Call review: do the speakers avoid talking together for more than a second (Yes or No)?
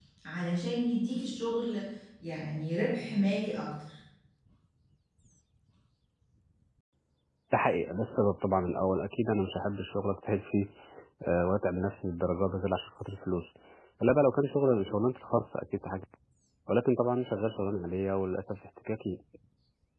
Yes